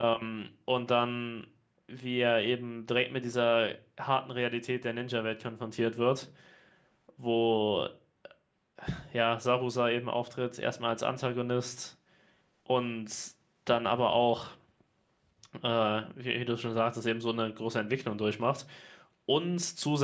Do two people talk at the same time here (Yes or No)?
No